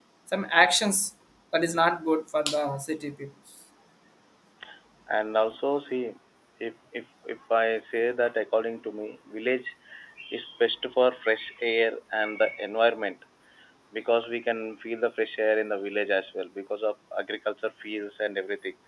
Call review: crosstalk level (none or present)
none